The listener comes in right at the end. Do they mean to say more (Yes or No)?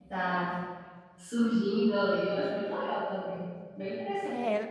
Yes